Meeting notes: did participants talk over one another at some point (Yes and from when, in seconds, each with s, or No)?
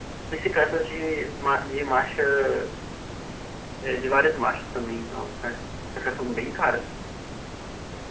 No